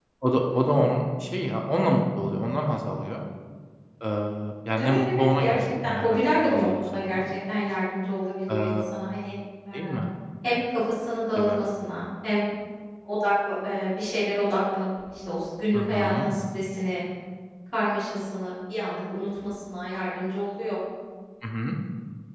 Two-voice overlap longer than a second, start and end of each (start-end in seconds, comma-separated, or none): 4.8-7.2